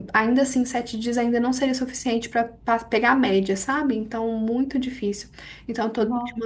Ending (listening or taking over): listening